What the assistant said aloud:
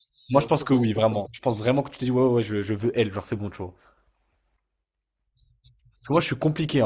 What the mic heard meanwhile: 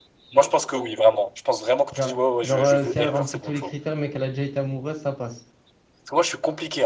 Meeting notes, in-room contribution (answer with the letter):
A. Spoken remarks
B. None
A